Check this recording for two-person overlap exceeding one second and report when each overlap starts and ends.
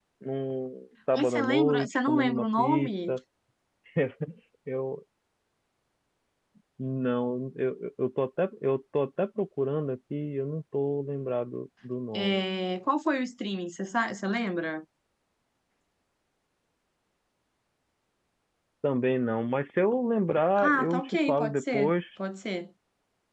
1.1-3.1, 20.6-21.9

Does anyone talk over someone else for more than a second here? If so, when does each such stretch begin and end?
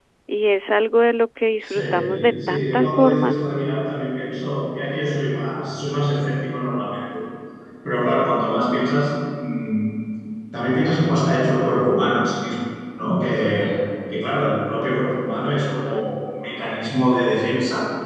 1.6-3.3

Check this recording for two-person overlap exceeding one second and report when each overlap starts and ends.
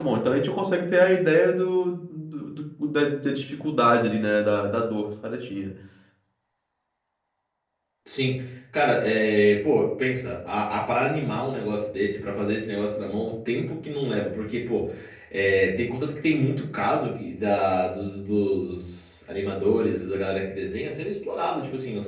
none

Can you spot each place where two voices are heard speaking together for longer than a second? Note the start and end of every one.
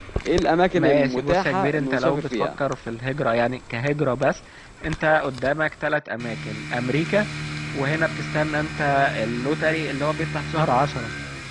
0.8-2.5

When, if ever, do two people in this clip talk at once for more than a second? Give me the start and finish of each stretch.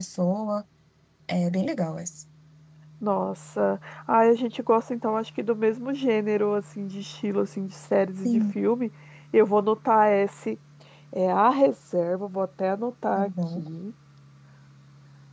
none

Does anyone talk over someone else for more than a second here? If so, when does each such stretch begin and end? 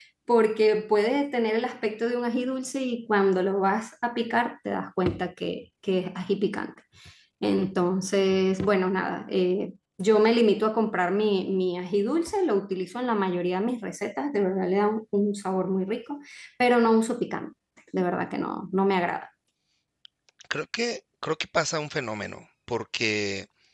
none

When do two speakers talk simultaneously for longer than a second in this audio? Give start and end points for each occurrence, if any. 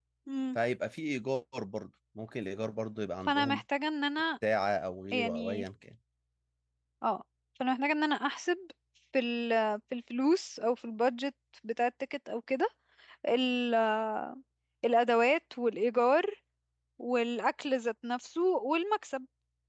none

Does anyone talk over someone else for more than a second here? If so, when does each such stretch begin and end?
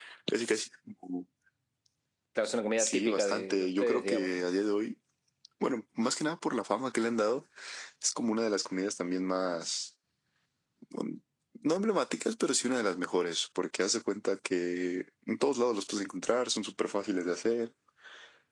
2.8-4.3

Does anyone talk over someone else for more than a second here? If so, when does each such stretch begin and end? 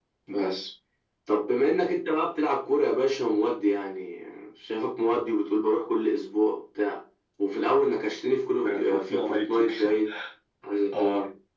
8.6-10.0

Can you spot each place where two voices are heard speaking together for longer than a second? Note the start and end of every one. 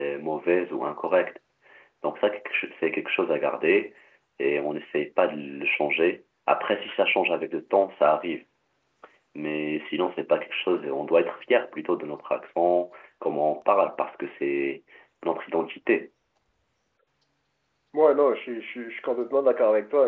none

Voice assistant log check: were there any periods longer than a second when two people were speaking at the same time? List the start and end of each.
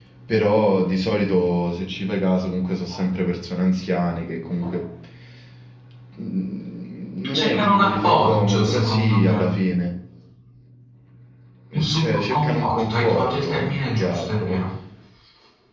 7.3-9.6, 11.8-14.6

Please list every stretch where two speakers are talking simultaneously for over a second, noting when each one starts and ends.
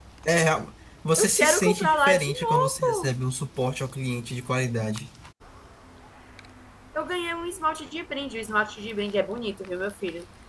1.2-3.1

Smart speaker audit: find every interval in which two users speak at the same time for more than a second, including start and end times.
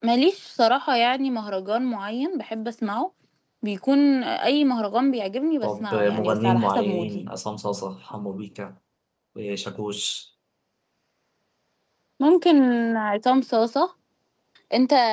5.6-7.2

